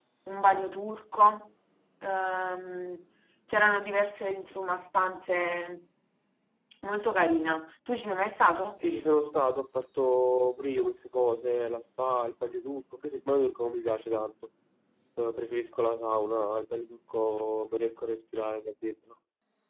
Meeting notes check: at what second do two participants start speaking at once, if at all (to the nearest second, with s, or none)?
none